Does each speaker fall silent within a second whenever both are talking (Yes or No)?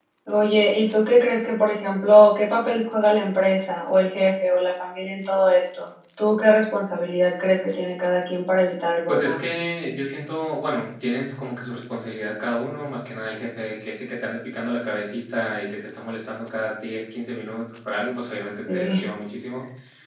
Yes